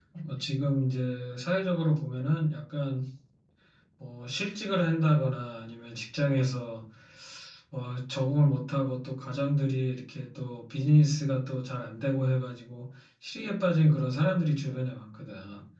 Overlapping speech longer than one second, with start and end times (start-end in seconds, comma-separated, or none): none